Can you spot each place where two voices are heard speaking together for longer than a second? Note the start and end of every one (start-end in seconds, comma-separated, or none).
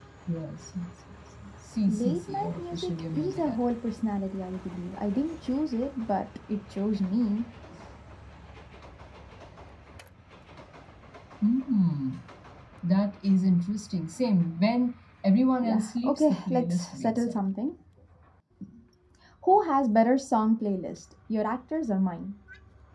1.9-3.6, 15.6-17.4